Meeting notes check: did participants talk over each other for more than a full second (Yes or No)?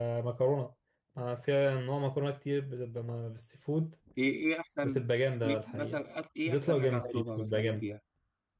Yes